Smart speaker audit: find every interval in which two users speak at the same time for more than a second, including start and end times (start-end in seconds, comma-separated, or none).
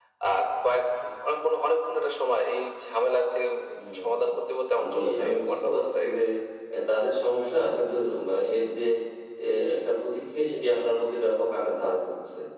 4.9-6.2